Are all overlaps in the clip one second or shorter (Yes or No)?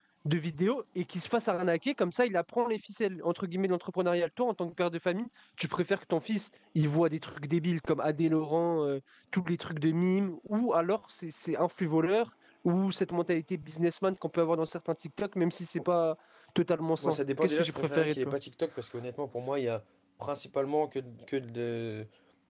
No